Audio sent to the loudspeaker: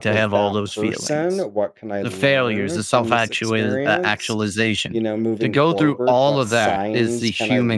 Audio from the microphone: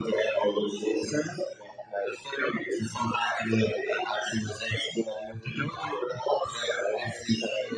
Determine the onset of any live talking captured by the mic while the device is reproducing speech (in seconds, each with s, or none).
none